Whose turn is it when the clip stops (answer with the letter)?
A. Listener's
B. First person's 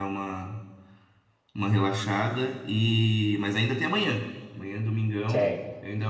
B